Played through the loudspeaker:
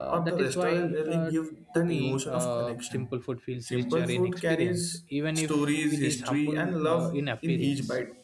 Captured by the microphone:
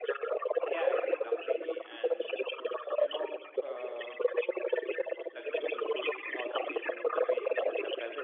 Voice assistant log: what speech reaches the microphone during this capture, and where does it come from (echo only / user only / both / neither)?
both